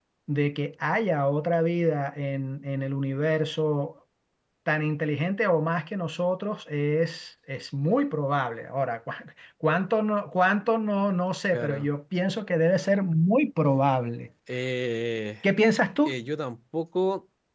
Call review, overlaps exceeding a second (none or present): none